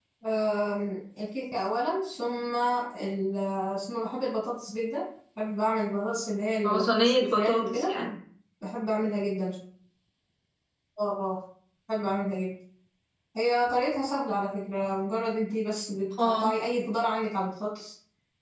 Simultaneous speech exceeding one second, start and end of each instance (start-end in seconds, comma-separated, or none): 6.7-7.9